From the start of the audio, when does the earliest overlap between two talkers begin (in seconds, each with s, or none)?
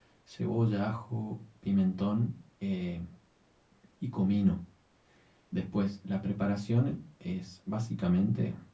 none